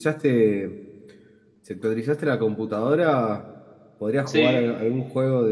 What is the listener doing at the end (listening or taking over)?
listening